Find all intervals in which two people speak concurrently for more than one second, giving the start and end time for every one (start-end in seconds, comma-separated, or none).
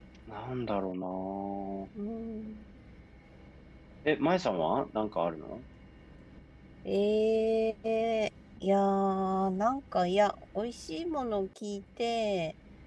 none